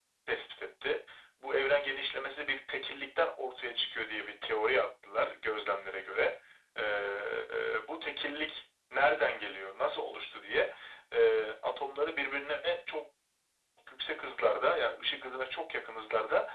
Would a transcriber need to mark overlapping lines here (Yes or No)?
No